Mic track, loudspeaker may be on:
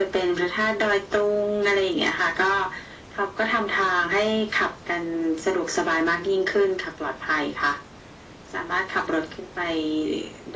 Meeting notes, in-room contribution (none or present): none